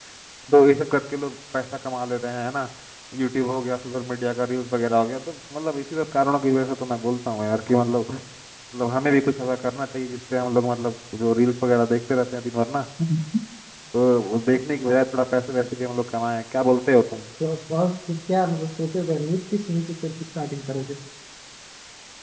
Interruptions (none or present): none